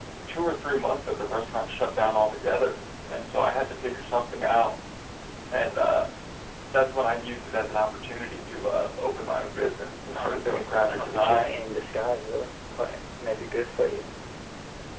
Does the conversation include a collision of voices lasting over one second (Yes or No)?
Yes